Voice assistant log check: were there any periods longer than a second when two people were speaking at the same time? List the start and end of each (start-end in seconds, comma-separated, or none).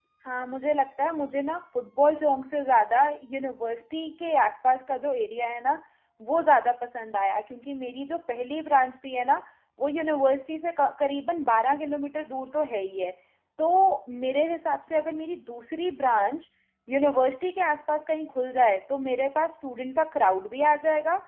none